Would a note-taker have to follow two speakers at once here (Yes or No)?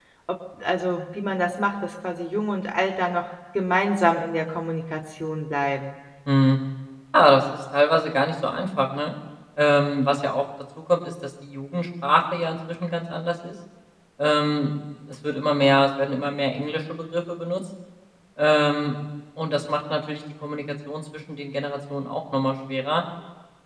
No